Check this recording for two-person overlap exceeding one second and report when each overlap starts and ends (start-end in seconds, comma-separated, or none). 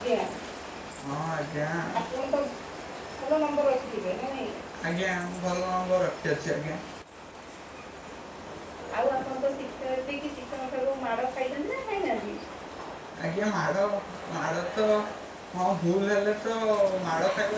none